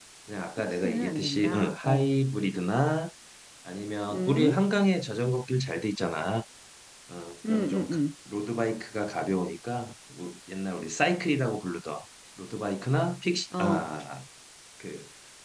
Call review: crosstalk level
present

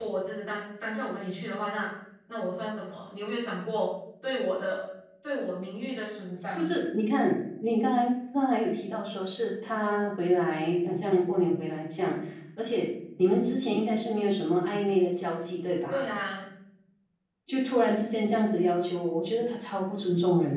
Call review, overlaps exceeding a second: none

